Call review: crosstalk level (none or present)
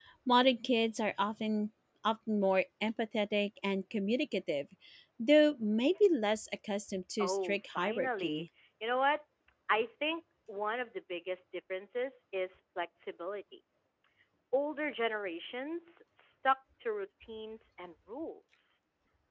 present